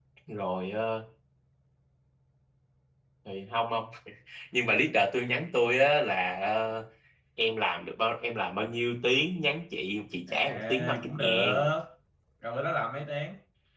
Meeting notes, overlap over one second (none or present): present